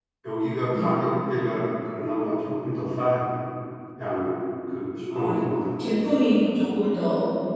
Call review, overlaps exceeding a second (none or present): none